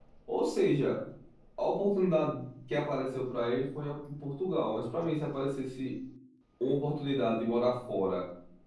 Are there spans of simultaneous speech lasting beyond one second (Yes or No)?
No